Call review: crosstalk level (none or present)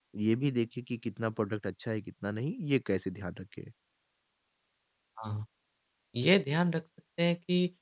none